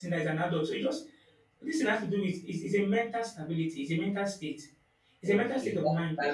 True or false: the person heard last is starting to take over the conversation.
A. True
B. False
A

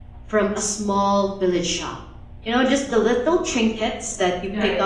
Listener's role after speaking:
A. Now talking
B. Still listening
B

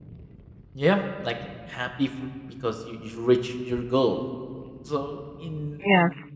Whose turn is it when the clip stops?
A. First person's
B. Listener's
A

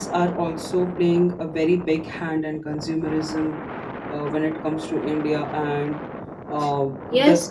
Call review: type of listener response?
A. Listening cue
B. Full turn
B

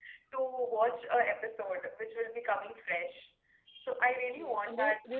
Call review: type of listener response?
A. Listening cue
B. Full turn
B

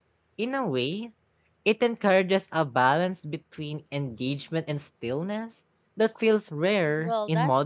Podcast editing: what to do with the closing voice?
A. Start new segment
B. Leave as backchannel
A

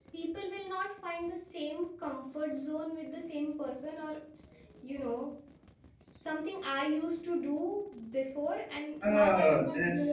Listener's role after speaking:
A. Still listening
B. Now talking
B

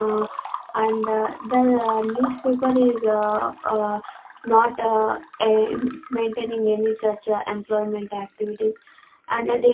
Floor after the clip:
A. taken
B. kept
B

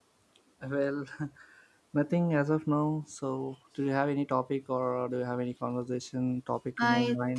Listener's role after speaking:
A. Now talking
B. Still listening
A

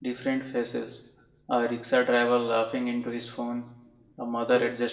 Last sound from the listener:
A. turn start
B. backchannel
B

